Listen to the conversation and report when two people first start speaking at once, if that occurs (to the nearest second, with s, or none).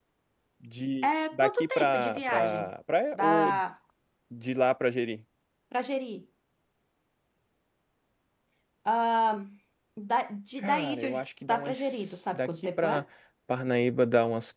1 s